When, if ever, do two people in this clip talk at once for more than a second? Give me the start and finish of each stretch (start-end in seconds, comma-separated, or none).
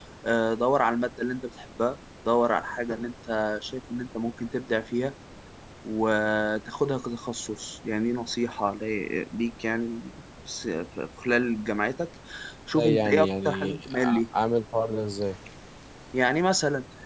12.7-14.2